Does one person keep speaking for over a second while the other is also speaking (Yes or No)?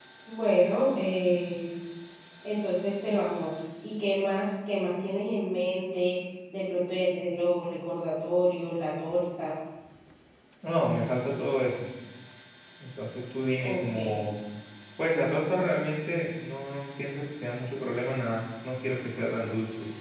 No